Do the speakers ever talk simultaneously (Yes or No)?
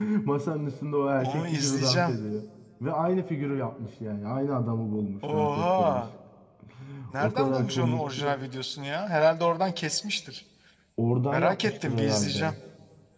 Yes